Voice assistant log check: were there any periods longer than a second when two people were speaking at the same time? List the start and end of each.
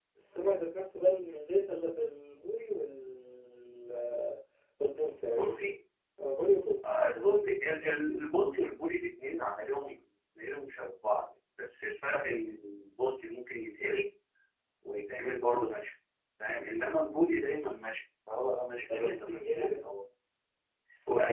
18.8-20.0

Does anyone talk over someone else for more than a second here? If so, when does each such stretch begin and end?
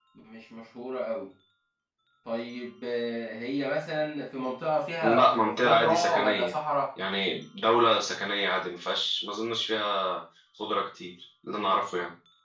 5.0-6.5

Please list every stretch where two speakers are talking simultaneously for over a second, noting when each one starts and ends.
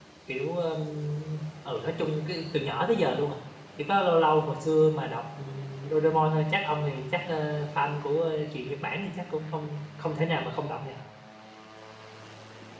none

